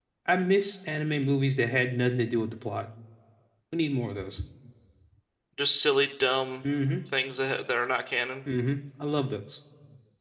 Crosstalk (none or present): none